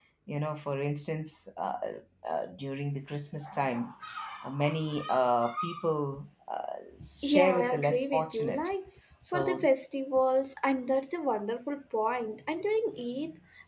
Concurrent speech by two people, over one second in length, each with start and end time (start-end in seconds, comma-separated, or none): 7.2-8.7